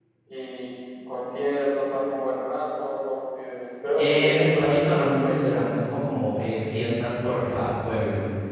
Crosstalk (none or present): present